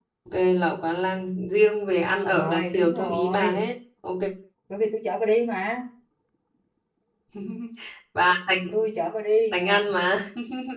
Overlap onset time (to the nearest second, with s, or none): 2 s